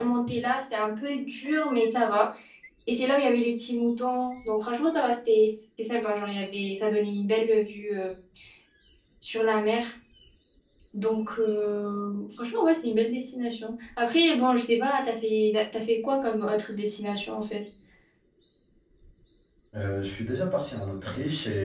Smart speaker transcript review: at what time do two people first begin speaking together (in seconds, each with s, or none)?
none